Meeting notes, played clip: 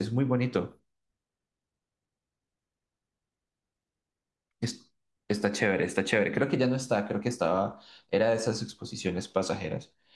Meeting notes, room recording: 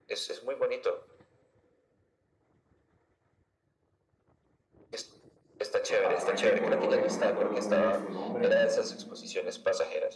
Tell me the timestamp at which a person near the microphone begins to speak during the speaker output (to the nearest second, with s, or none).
6 s